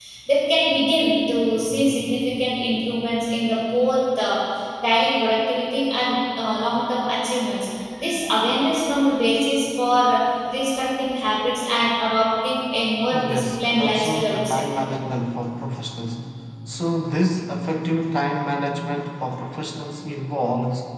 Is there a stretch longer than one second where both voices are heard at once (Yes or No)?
Yes